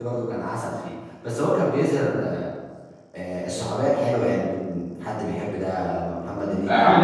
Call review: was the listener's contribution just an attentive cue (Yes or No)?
No